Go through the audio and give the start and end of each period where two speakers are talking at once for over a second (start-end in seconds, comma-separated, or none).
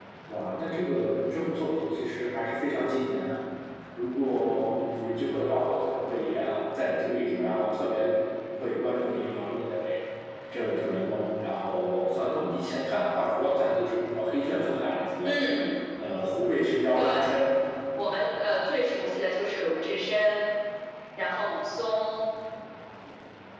none